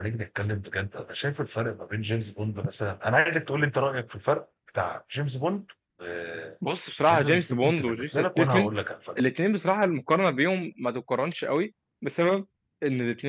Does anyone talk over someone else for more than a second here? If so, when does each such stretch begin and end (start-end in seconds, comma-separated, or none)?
7.1-8.7